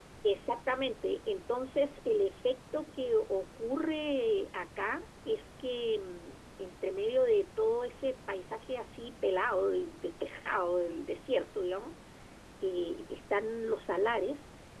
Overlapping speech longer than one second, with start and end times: none

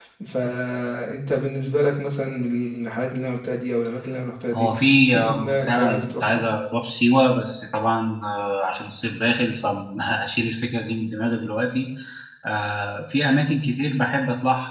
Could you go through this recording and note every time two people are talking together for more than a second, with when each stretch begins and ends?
4.5-6.5

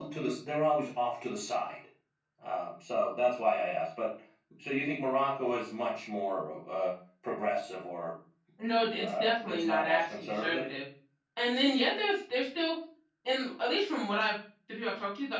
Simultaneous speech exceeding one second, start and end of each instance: 8.9-10.6

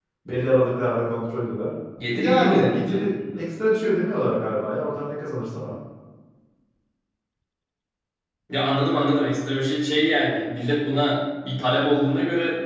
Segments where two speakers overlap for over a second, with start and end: 2.1-3.4

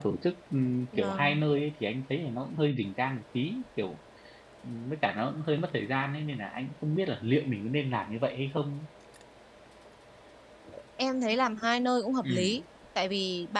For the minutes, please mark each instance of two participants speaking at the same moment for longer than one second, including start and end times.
none

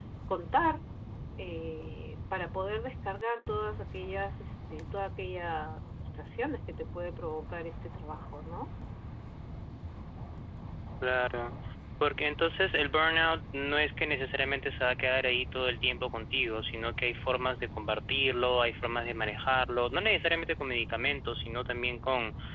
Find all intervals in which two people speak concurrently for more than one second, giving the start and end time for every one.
none

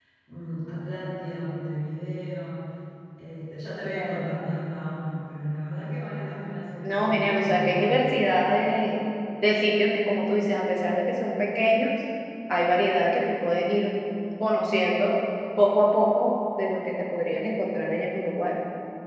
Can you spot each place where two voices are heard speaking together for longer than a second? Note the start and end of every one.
6.8-8.1

